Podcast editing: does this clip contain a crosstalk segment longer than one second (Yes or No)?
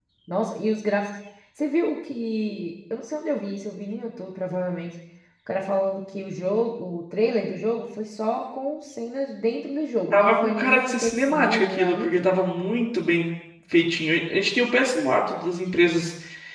Yes